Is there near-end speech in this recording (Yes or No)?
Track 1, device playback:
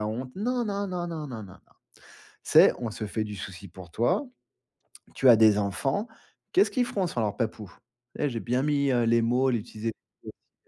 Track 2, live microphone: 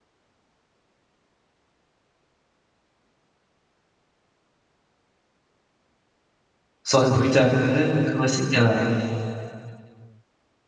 Yes